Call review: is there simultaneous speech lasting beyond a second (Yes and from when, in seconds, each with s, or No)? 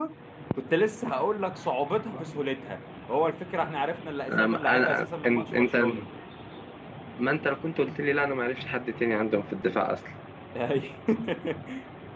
Yes, from 4.3 s